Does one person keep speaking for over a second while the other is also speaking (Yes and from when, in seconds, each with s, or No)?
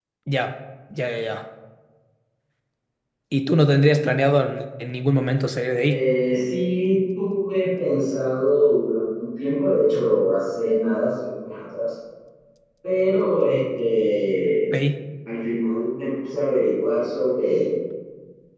No